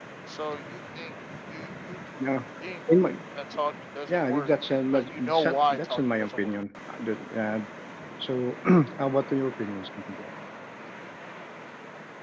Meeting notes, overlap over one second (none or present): present